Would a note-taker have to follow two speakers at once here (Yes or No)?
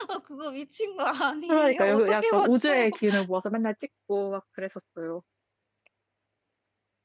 Yes